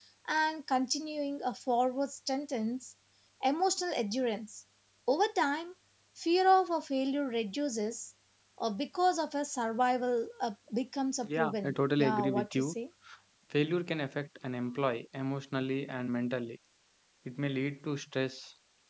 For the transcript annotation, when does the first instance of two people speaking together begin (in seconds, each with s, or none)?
11.2 s